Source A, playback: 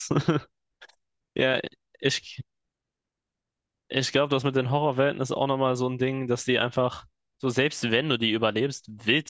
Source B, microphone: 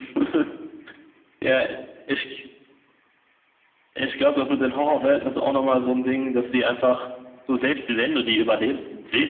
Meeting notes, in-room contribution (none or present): none